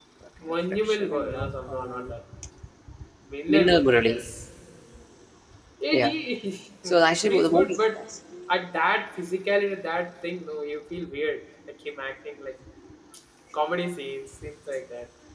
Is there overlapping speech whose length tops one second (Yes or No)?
Yes